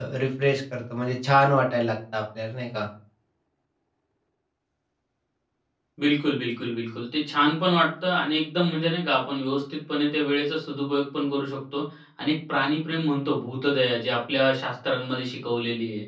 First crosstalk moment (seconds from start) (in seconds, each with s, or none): none